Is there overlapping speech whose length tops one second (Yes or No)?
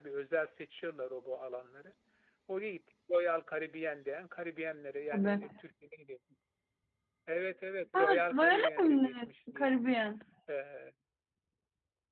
Yes